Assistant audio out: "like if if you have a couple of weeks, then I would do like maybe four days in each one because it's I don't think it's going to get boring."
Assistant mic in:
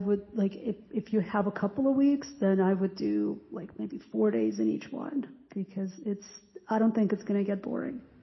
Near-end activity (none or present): none